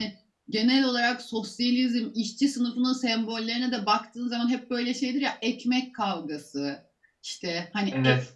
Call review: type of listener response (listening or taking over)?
listening